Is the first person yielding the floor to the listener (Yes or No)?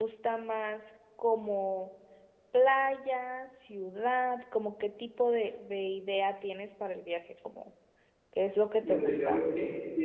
Yes